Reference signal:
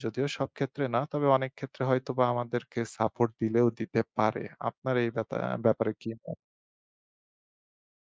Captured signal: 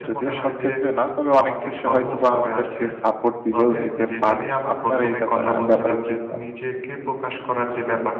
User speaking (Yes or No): Yes